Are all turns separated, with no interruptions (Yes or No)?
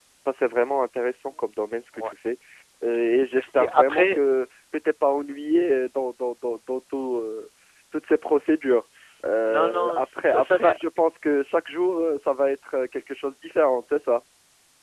No